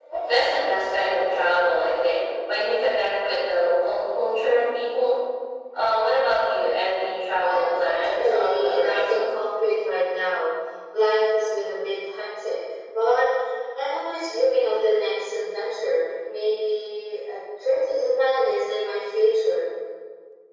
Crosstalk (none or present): present